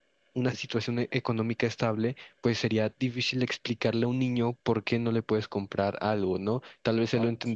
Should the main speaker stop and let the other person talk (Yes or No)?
No